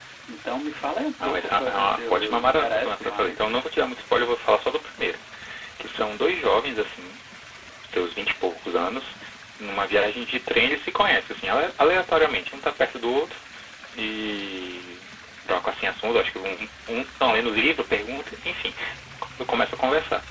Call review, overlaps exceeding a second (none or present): present